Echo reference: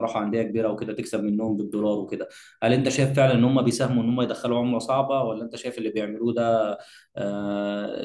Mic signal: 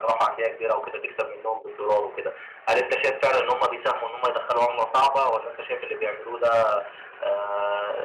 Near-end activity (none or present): none